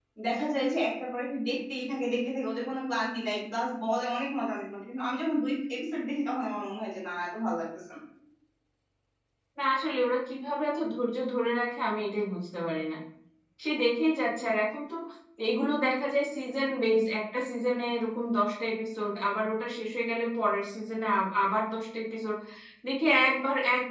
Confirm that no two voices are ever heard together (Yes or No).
Yes